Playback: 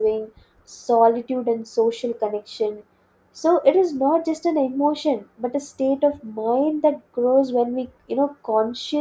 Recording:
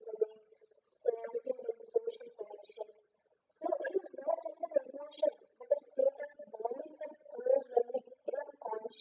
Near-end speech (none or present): none